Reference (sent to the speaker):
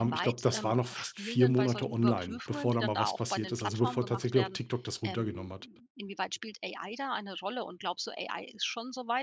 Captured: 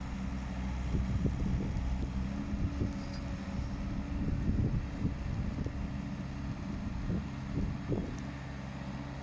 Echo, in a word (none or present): none